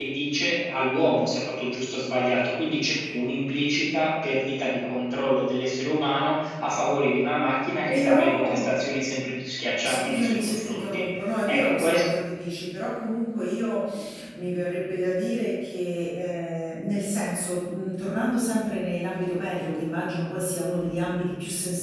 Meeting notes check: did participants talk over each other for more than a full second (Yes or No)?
Yes